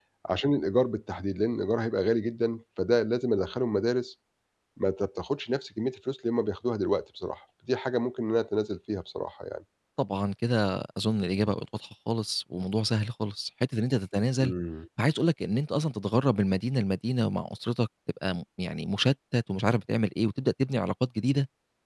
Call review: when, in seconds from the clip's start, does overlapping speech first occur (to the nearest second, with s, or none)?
none